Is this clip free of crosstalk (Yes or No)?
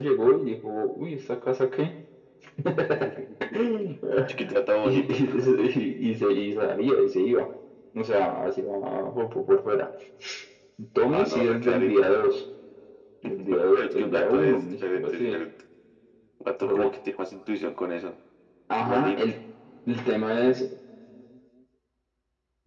No